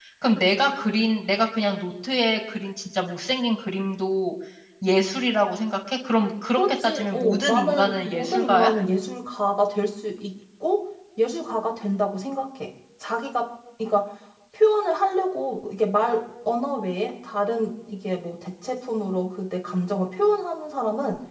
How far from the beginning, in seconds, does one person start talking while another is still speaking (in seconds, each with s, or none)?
6.5 s